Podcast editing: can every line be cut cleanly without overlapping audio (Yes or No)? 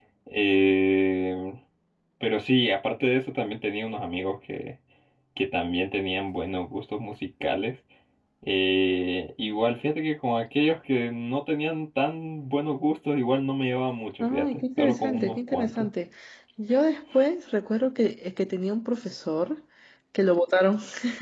No